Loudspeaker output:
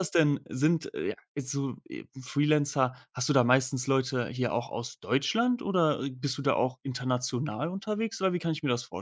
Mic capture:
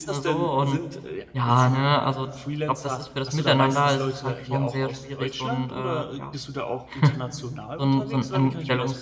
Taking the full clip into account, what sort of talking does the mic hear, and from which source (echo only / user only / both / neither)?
both